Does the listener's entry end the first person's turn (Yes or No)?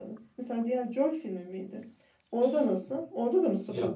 Yes